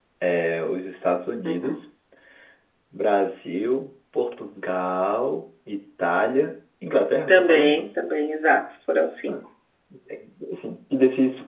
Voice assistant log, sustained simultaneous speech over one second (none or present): none